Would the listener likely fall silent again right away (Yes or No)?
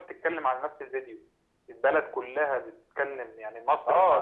No